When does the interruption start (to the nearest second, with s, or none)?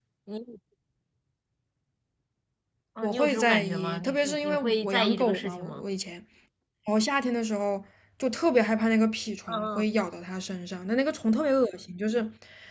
3 s